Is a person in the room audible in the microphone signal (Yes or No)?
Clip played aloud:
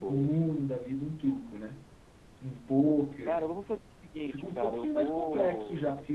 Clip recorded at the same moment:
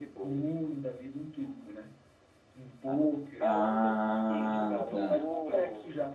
Yes